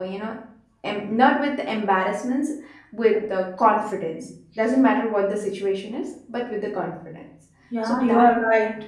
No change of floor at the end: No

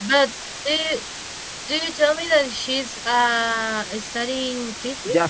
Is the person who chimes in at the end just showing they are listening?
No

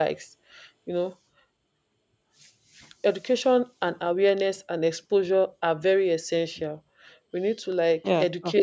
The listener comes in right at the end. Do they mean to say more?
No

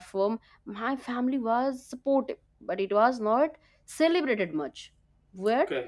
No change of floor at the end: Yes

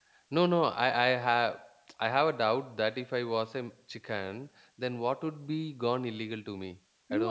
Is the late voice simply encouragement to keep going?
No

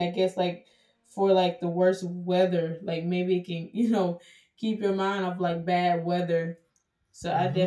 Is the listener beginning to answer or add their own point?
Yes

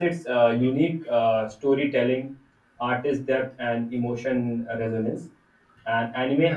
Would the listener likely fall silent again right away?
Yes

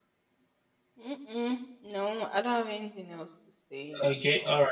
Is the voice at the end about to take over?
Yes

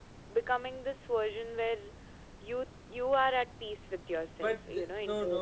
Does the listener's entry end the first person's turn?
Yes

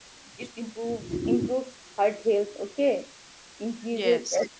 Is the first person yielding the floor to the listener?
No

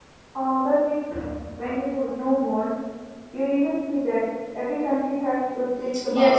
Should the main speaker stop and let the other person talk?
Yes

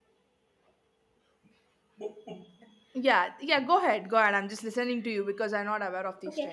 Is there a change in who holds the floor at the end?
Yes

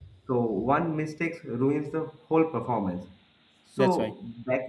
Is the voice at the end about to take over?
No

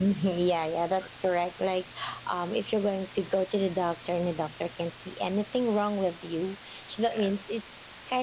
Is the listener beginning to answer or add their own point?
No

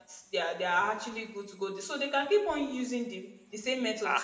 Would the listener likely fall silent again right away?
No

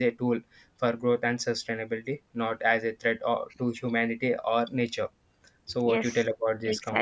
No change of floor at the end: No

